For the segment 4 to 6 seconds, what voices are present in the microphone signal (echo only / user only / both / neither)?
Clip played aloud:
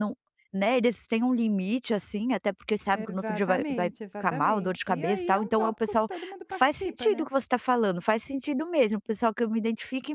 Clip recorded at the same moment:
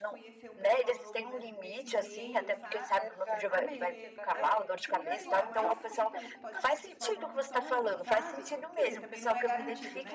both